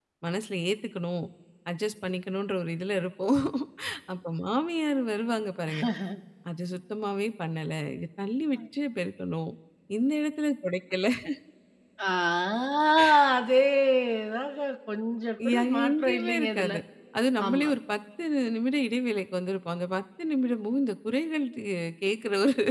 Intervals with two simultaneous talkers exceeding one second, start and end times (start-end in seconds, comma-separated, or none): 15.5-16.7